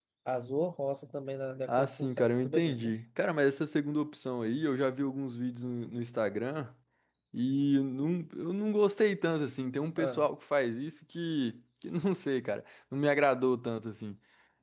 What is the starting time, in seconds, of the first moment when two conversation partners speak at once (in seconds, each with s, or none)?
1.7 s